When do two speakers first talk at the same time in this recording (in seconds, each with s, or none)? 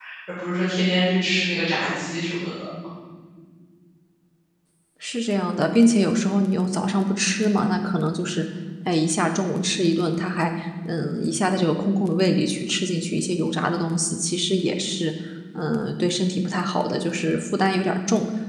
none